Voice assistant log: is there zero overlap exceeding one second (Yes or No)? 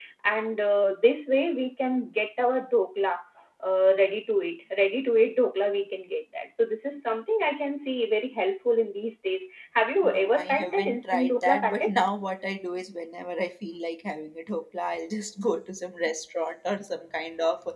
No